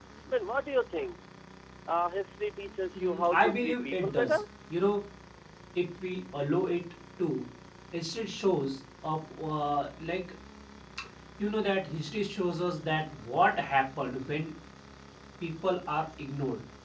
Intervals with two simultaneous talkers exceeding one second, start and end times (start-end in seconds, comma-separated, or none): 3.0-4.4